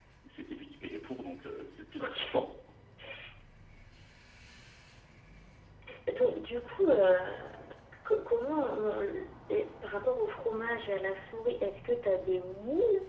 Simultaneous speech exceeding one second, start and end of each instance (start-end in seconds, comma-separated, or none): none